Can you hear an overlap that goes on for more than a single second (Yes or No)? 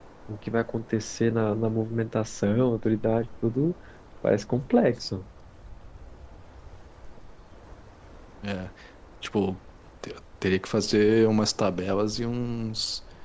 No